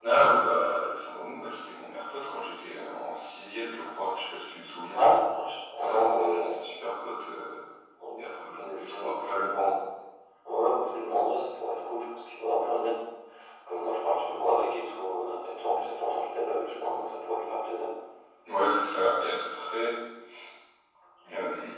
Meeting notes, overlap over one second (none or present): present